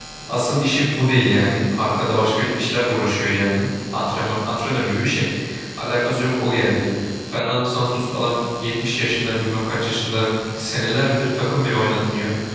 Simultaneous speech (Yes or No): No